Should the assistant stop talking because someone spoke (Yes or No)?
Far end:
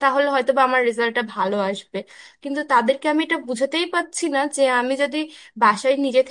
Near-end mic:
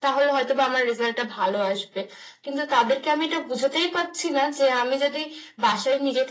No